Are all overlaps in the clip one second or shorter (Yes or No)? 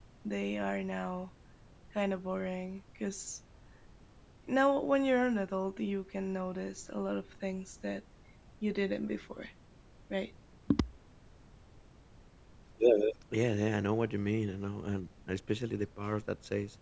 Yes